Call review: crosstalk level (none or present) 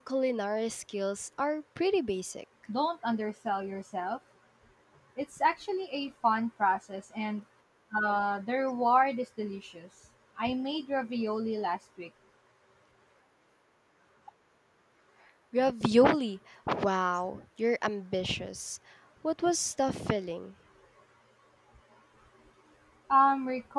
none